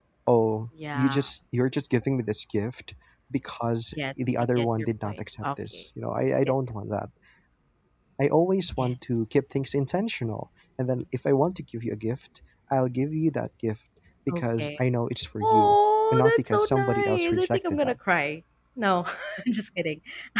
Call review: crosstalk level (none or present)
present